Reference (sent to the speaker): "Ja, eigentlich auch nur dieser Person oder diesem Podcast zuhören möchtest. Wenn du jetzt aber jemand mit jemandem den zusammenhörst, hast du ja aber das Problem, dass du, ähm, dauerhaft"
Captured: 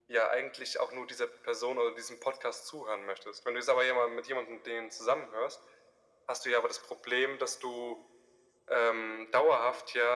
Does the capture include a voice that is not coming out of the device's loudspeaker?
No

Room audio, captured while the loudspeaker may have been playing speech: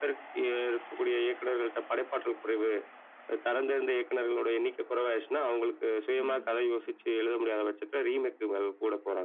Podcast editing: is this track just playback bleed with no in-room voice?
No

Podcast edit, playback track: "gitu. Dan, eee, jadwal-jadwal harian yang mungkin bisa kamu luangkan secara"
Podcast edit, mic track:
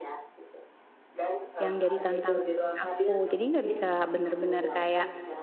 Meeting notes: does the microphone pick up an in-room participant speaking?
Yes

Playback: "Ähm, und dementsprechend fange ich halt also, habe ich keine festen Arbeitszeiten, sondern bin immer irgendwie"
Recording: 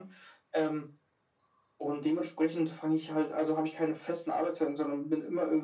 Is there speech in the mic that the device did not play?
No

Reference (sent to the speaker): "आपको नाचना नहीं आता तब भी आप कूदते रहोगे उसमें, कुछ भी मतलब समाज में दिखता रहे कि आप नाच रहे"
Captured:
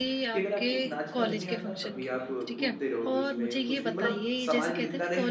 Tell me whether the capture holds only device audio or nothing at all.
No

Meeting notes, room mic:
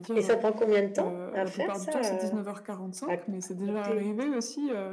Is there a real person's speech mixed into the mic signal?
Yes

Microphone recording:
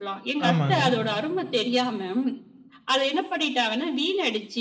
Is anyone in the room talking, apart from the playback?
Yes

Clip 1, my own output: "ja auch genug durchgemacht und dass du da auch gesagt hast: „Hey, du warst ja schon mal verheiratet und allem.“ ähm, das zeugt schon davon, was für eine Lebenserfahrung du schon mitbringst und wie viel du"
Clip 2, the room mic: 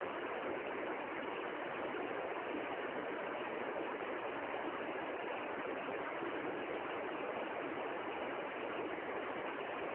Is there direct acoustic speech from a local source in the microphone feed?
No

